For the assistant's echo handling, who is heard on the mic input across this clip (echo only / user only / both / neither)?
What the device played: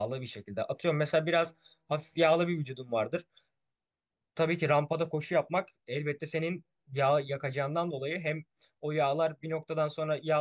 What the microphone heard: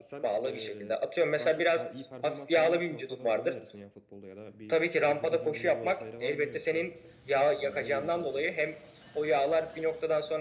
both